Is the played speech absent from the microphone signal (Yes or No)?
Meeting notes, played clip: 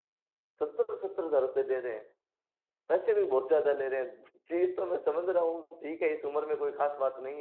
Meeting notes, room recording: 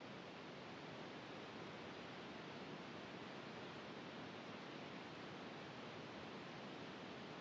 Yes